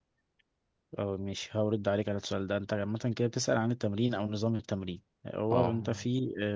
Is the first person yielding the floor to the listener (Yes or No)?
No